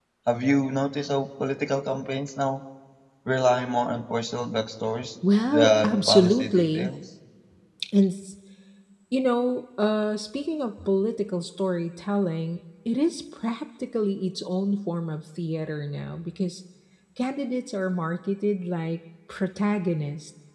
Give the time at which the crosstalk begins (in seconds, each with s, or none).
5.5 s